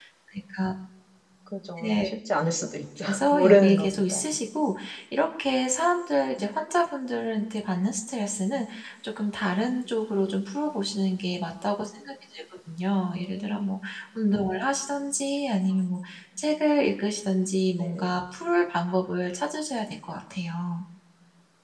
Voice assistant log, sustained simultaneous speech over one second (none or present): present